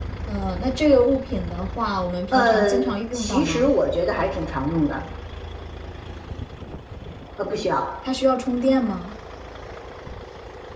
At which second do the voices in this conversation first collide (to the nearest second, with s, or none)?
2 s